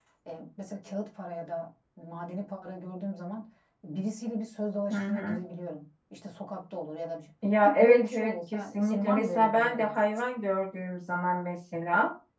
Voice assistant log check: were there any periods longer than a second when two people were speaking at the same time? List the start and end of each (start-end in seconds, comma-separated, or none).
7.6-9.9